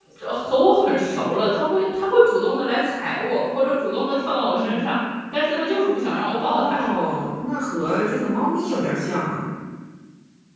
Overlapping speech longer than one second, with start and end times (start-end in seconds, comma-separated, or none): none